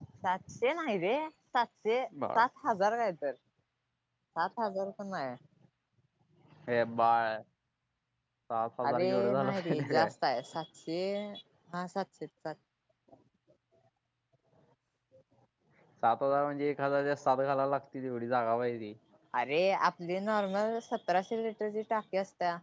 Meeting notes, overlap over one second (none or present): present